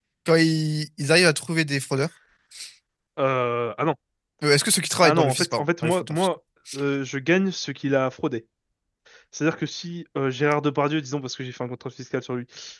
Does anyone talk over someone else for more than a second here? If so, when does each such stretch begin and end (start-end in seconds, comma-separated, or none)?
5.0-6.3